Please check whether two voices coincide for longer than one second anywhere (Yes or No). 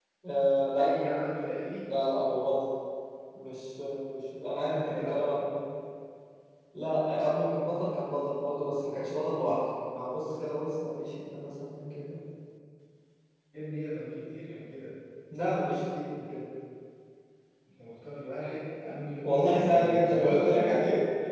Yes